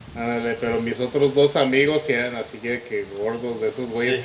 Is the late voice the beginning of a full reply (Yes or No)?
No